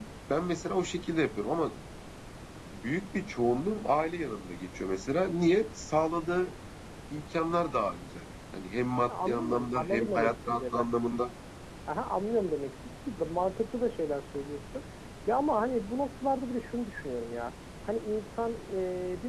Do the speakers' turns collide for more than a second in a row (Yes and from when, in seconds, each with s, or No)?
Yes, from 9.1 s